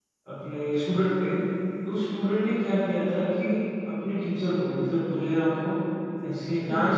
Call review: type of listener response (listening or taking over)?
listening